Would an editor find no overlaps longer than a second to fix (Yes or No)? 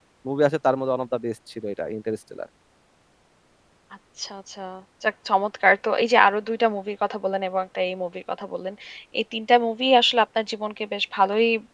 Yes